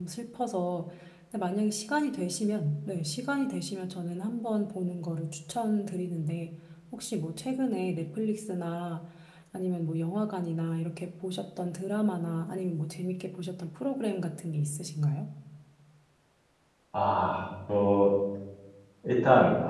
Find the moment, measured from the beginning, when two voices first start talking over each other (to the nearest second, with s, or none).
none